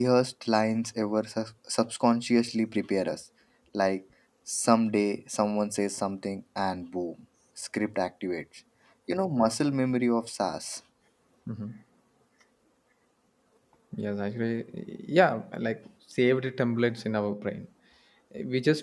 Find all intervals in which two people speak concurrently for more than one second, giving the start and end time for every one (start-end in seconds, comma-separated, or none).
none